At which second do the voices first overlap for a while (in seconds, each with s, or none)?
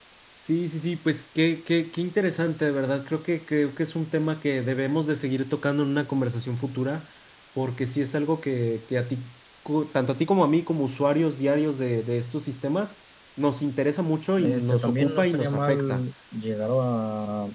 14.4 s